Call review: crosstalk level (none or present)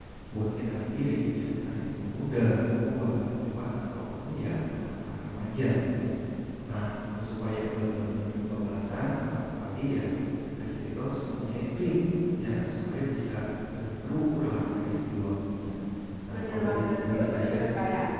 present